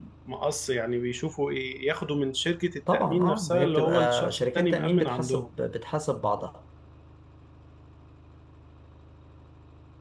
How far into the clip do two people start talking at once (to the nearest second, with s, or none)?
3 s